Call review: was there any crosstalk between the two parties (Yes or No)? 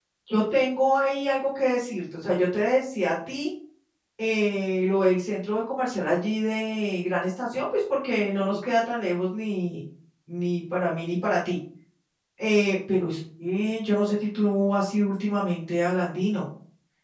No